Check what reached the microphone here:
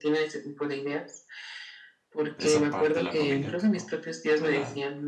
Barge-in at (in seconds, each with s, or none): 2.4 s